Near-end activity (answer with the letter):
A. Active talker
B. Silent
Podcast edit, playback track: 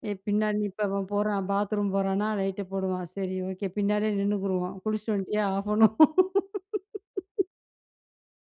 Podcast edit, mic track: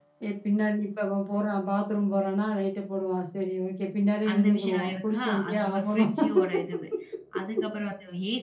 A